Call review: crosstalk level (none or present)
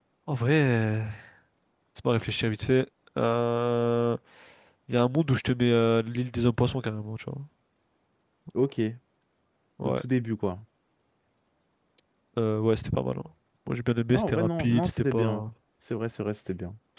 present